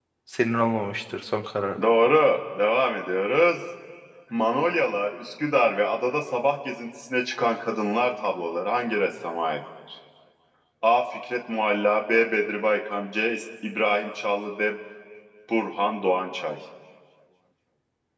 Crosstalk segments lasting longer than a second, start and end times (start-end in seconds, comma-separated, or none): none